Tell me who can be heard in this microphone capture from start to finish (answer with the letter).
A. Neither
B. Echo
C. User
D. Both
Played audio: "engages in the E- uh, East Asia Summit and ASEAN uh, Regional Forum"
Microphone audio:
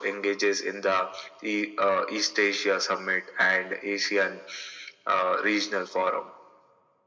B